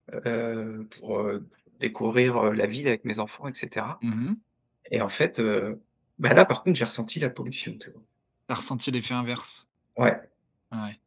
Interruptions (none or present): none